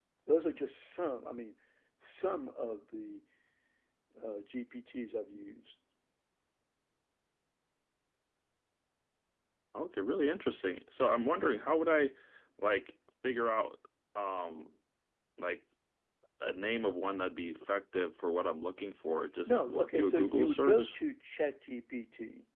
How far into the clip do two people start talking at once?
19.5 s

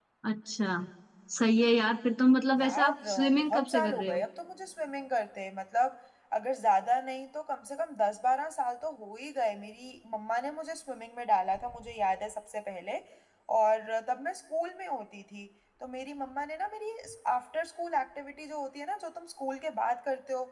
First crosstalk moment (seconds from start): 2.6 s

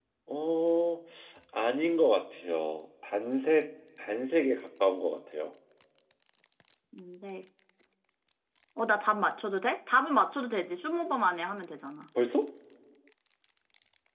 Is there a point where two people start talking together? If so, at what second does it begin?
none

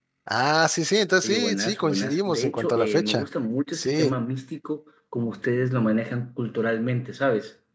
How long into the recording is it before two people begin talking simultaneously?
1.2 s

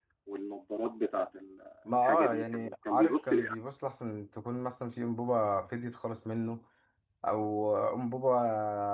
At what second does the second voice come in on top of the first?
1.9 s

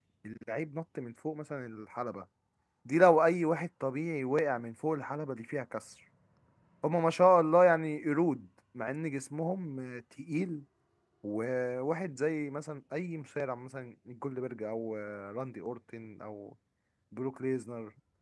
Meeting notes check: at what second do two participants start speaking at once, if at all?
none

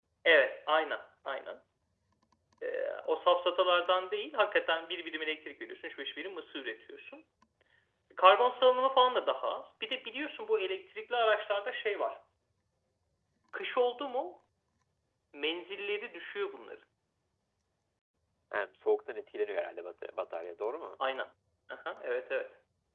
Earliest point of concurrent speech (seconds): none

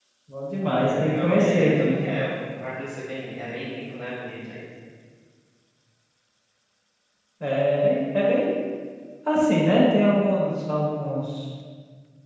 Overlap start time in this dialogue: 0.7 s

